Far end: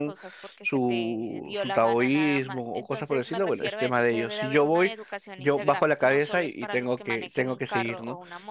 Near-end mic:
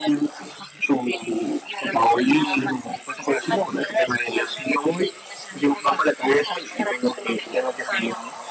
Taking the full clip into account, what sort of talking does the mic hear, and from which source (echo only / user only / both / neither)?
echo only